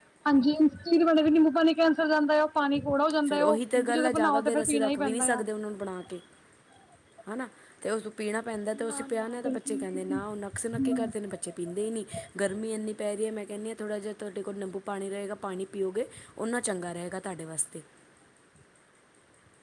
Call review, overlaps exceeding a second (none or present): present